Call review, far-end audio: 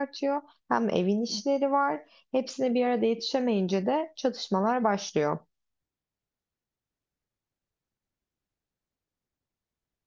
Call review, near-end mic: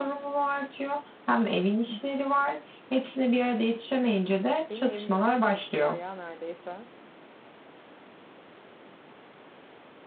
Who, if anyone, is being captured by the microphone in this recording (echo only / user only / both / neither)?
both